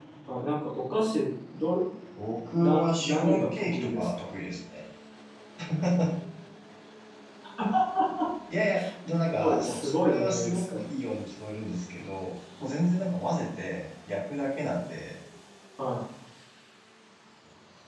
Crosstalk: present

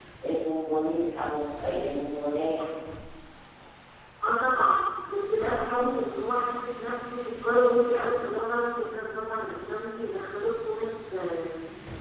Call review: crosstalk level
none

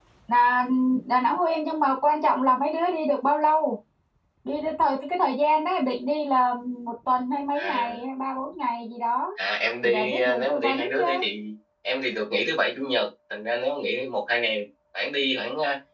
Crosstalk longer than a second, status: present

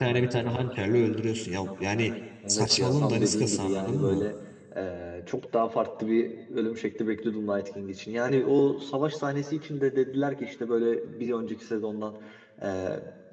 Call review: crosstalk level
present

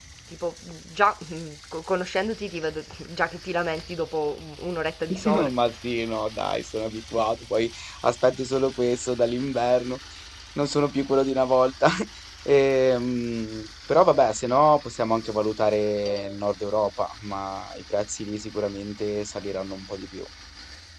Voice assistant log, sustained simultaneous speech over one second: none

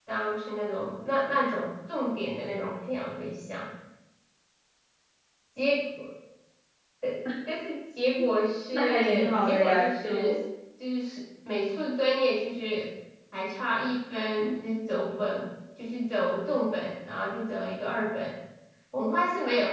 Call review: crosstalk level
present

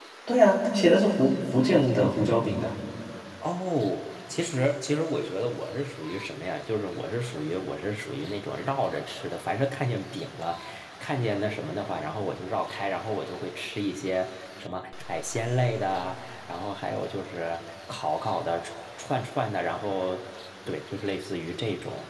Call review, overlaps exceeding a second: none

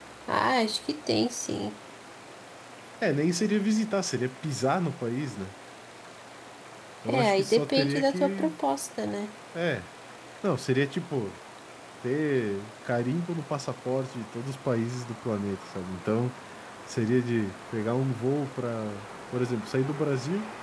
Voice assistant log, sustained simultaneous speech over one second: present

